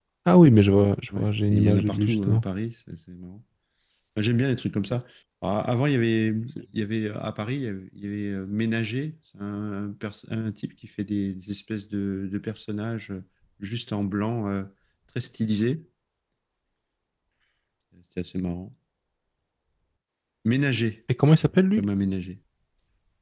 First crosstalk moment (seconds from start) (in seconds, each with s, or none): 1.2 s